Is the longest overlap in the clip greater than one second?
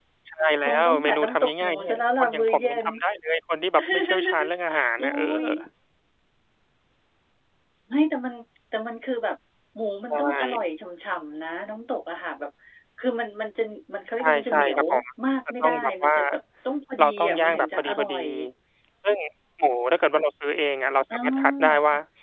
Yes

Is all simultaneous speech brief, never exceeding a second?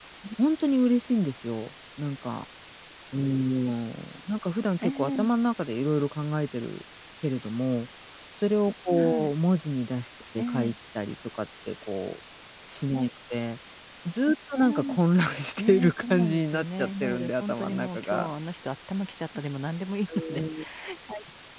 No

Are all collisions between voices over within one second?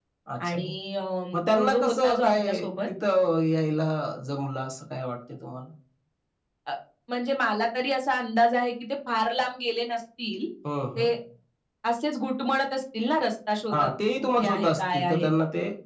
No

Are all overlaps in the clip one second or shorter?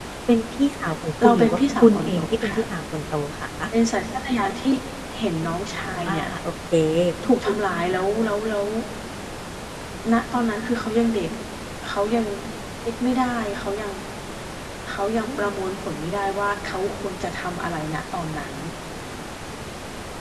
No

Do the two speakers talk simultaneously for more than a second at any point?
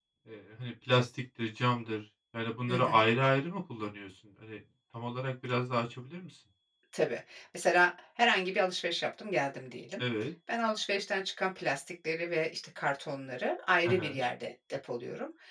No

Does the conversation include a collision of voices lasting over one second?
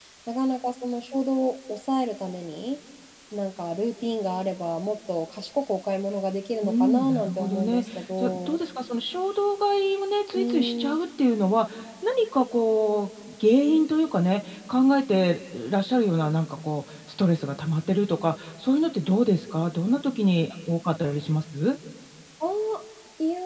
Yes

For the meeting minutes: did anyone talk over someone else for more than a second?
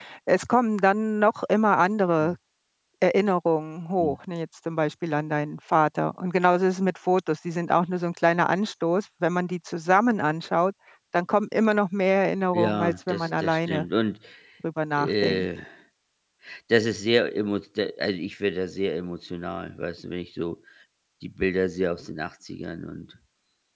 Yes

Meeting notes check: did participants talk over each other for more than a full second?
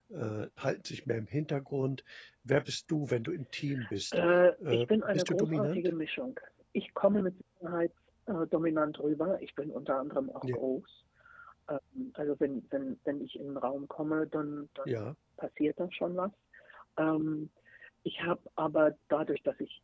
Yes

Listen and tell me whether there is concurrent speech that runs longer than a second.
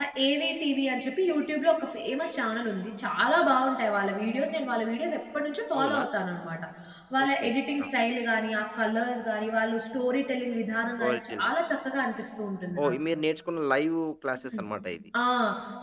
No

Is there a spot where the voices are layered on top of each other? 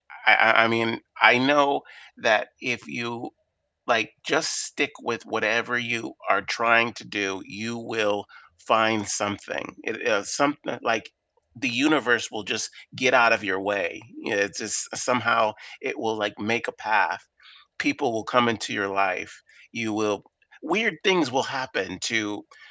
No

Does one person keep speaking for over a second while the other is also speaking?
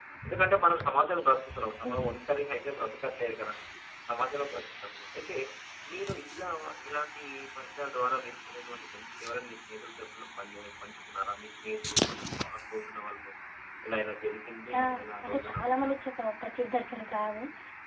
Yes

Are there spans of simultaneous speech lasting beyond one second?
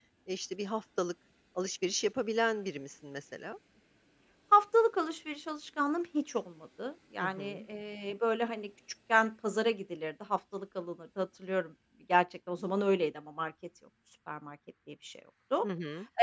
No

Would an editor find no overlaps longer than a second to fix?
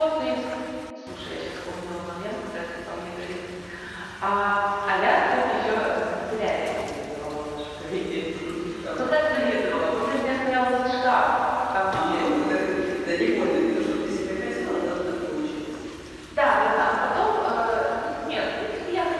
Yes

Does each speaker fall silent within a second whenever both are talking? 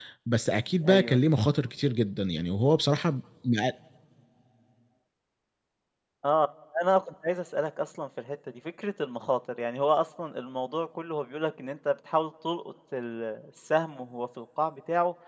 Yes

